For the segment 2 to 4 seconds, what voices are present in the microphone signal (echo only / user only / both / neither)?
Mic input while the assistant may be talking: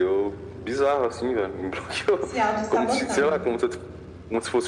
both